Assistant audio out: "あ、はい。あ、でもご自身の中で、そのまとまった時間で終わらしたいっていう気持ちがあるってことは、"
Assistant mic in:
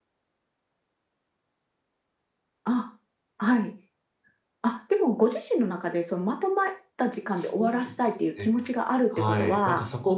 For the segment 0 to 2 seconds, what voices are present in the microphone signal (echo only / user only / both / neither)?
neither